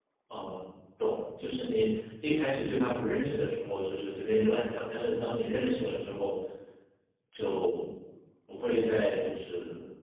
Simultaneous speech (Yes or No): No